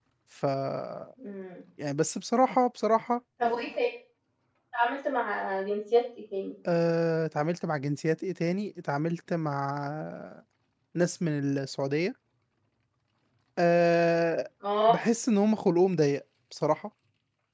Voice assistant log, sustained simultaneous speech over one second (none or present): none